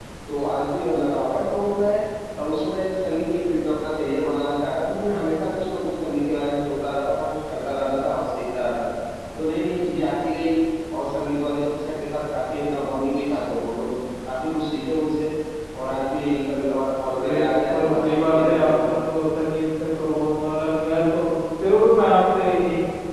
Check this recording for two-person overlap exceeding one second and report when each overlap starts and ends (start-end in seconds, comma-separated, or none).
17.2-18.7